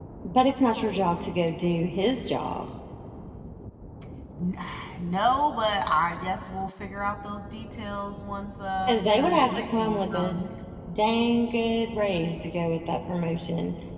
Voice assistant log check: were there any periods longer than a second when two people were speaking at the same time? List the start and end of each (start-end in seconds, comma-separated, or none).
8.9-10.3